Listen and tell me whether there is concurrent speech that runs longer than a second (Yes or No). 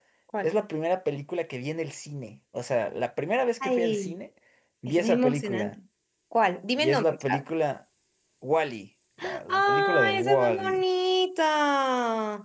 Yes